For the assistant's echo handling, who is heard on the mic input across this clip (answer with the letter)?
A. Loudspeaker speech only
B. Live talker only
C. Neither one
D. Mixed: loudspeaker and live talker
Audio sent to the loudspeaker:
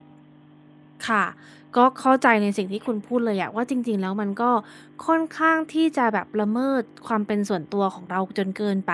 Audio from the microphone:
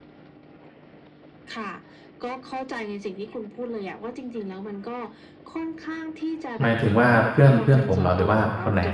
D